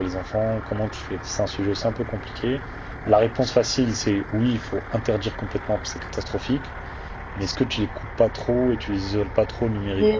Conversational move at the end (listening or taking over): taking over